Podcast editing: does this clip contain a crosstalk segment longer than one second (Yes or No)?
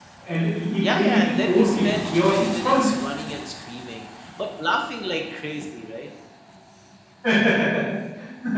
Yes